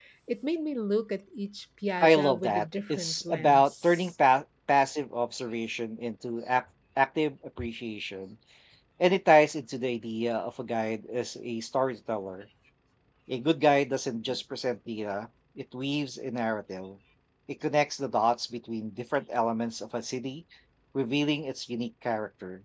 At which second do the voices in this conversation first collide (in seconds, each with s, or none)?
2.0 s